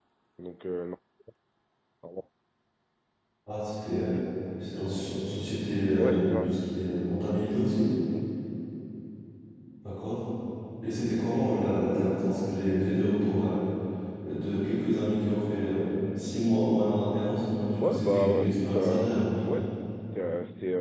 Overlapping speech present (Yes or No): Yes